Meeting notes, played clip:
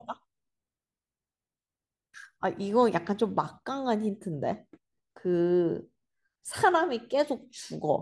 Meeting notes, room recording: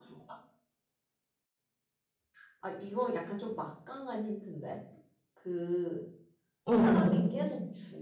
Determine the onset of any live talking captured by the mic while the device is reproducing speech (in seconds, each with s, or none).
6.7 s